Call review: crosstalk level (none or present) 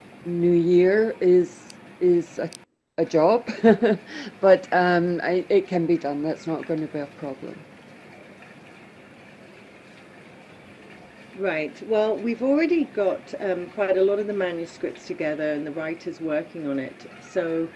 none